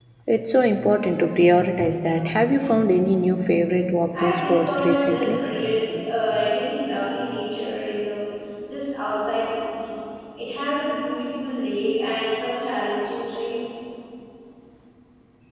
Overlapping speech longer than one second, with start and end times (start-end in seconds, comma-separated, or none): 4.2-5.4